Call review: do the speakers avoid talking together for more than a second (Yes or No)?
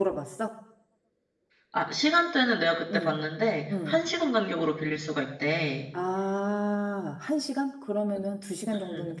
Yes